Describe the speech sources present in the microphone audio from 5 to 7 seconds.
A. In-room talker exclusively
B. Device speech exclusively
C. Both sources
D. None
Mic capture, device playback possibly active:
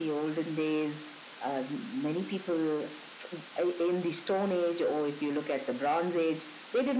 B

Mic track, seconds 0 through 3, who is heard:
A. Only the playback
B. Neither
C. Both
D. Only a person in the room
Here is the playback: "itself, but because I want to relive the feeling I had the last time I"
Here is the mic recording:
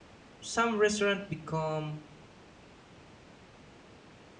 D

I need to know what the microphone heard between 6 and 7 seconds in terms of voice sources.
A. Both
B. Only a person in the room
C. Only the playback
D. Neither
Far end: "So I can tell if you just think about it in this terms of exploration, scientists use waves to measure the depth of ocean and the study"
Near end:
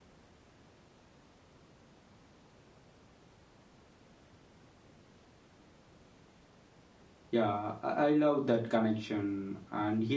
D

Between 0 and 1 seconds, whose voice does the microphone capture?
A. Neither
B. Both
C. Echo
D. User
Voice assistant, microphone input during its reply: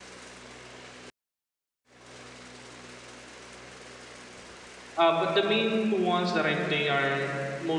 A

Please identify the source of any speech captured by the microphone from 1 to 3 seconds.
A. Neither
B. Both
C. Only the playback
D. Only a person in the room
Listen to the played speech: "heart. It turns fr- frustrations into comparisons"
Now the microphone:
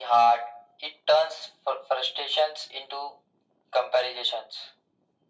C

